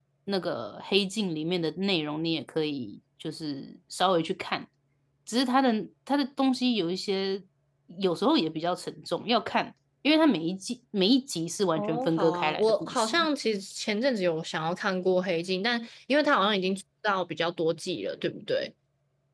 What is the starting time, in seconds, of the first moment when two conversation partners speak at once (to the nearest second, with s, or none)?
12 s